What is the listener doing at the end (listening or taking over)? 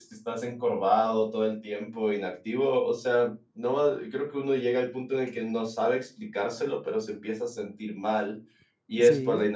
listening